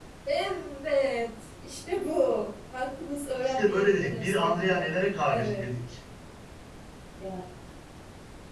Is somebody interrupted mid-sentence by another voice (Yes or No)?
Yes